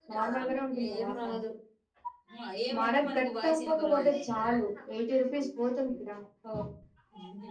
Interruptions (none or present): present